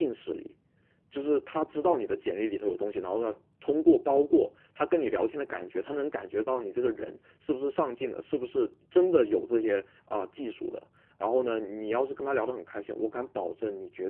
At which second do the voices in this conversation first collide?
none

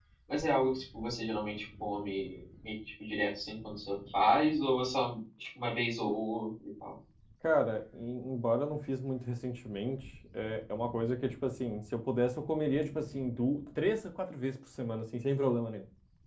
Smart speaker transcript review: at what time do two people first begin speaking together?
none

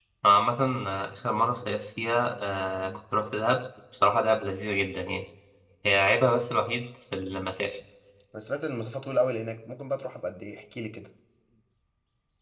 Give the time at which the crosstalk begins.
none

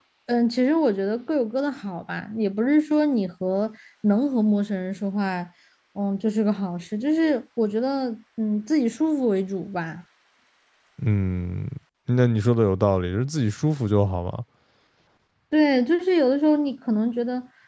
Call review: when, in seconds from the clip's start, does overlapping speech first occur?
none

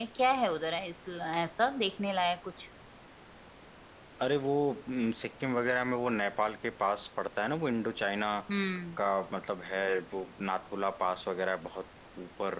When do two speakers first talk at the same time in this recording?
none

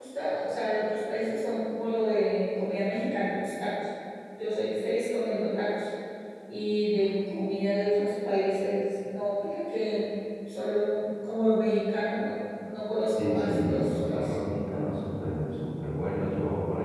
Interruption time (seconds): 13.1 s

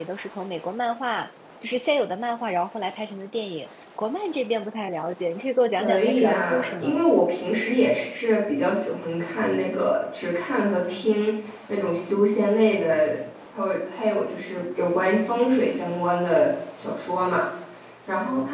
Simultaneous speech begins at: 5.8 s

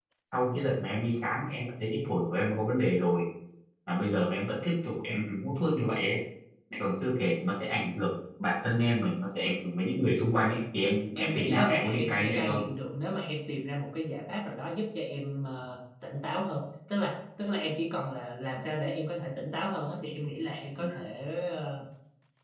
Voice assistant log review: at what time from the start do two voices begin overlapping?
11.2 s

